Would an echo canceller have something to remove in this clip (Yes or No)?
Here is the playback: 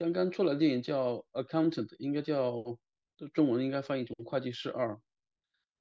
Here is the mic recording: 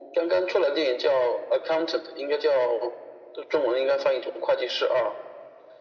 Yes